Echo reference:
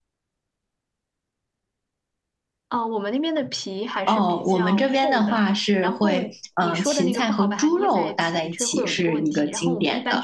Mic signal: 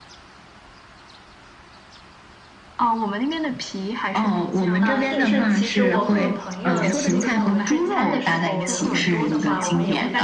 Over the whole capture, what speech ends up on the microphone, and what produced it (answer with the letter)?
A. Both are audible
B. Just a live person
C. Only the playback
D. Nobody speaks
A